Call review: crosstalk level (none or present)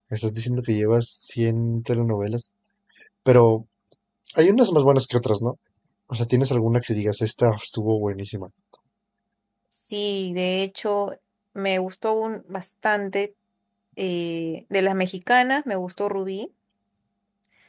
none